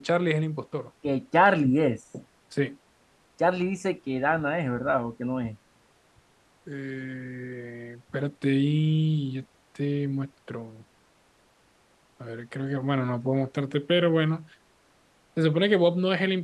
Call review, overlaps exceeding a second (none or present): none